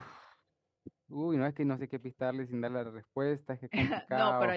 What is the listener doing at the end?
taking over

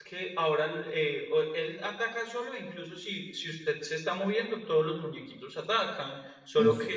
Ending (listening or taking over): listening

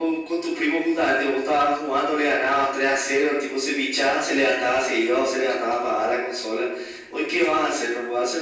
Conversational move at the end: listening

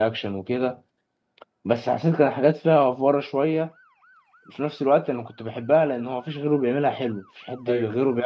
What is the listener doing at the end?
listening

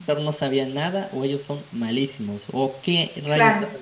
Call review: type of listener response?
listening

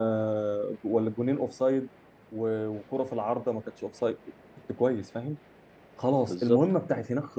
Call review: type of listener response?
listening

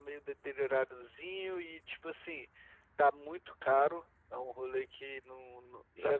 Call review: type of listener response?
listening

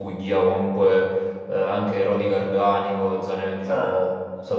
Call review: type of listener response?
listening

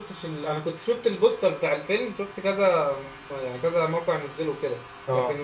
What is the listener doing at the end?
listening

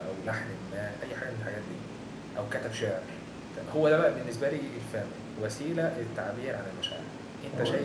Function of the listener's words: listening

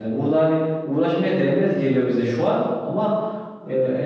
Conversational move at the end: listening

